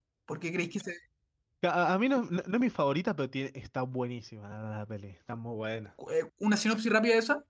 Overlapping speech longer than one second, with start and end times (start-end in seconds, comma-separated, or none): none